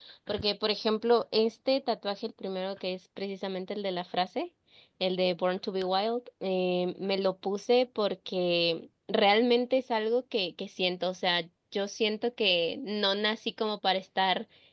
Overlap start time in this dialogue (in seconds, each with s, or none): none